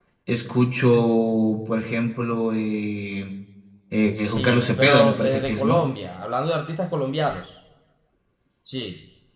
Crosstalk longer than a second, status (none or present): present